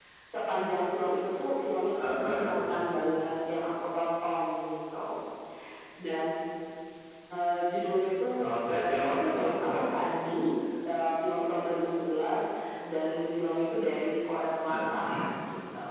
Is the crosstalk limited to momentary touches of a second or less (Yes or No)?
No